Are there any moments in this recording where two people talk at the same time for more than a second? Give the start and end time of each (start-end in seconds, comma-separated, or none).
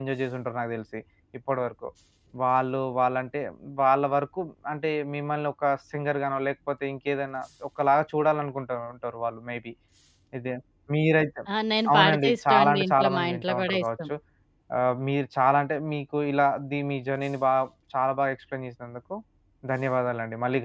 11.9-13.8